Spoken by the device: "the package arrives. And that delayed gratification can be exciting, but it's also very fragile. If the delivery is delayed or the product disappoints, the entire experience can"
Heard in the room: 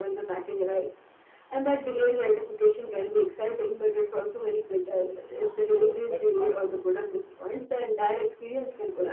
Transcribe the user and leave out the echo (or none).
both but both.